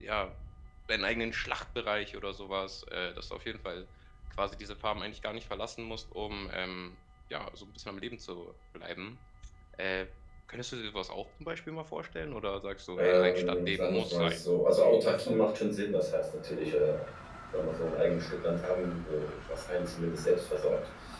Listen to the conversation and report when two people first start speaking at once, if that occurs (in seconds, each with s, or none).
13.0 s